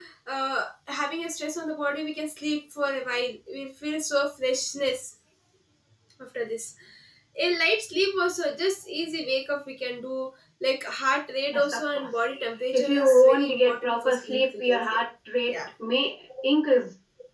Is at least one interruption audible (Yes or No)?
Yes